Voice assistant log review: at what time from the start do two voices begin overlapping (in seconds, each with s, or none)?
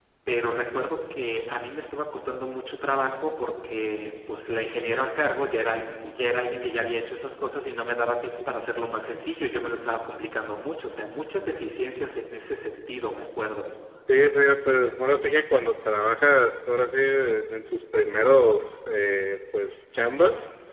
none